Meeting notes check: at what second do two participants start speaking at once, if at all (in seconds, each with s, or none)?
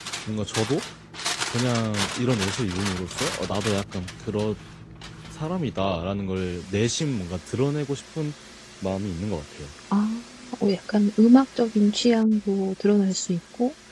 none